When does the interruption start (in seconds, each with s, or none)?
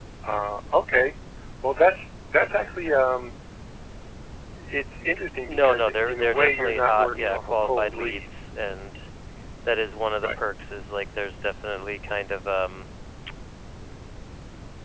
5.5 s